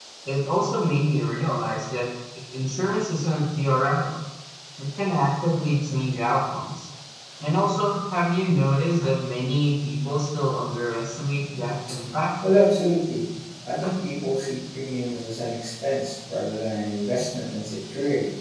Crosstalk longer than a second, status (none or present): none